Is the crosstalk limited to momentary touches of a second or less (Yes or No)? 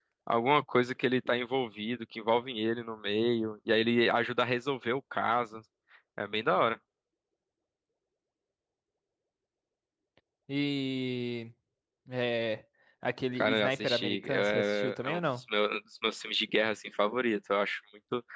No